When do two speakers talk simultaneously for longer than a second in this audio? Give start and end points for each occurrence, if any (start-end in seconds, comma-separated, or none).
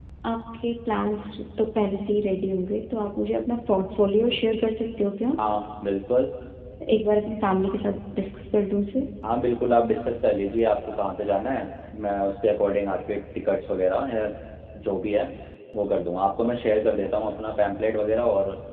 none